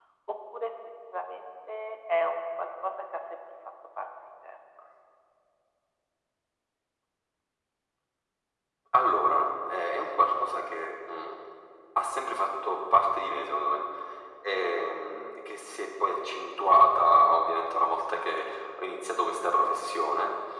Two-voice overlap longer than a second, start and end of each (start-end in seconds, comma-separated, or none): none